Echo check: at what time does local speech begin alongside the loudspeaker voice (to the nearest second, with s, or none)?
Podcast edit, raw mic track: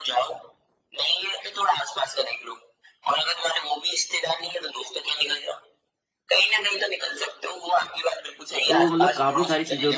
9 s